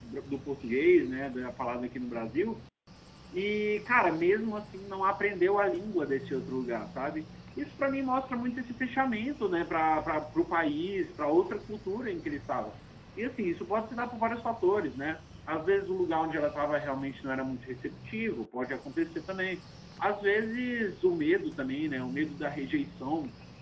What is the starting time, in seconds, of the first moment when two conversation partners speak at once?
none

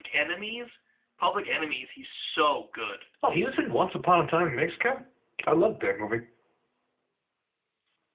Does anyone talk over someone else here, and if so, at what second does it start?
none

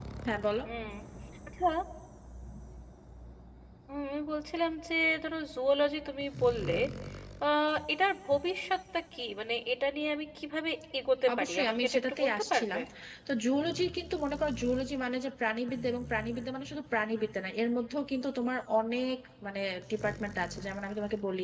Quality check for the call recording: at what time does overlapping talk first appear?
11.3 s

